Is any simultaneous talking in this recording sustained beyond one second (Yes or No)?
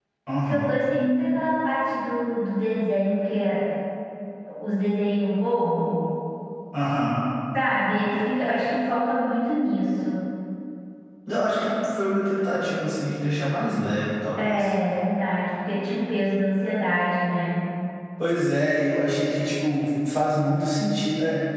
No